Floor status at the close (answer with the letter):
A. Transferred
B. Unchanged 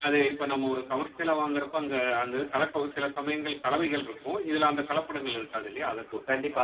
A